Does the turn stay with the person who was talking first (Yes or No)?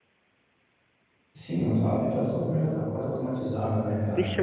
No